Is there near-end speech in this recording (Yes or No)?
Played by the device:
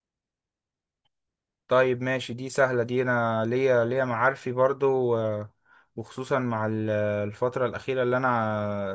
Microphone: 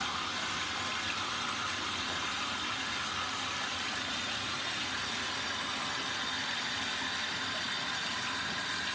No